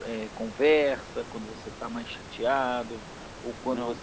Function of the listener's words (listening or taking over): listening